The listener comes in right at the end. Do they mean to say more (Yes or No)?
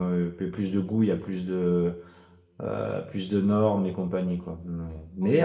No